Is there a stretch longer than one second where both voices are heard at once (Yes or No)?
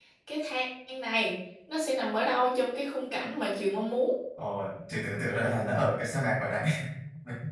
No